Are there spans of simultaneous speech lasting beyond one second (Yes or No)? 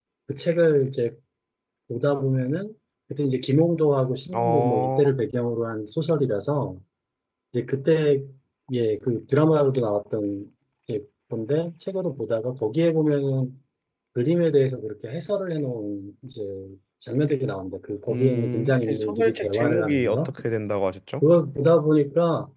Yes